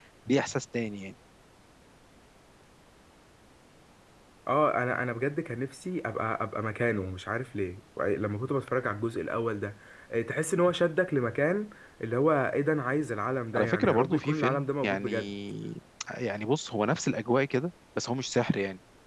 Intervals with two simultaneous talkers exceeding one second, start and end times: 13.6-15.3

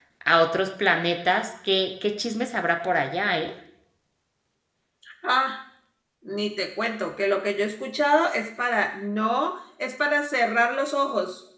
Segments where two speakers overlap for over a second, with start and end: none

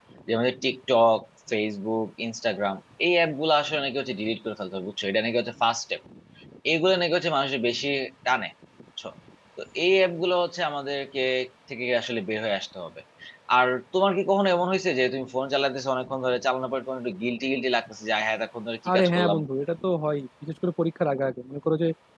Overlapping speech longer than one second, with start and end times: none

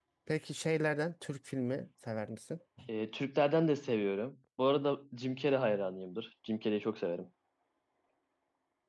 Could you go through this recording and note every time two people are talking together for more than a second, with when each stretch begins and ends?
none

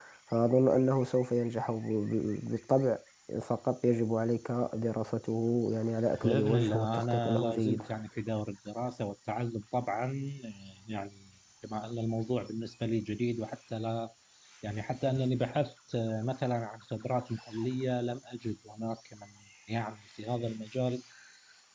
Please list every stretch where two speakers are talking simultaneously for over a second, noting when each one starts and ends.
6.2-7.8

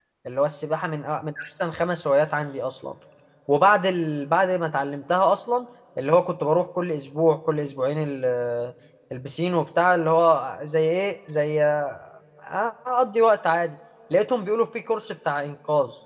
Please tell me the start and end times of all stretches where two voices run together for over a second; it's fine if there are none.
none

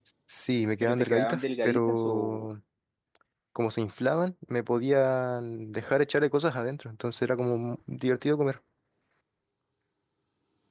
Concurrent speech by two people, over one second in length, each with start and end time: 0.8-2.5

